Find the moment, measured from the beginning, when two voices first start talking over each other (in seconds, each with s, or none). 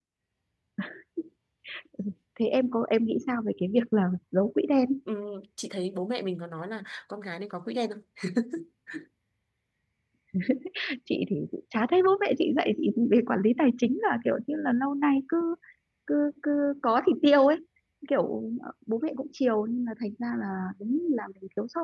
none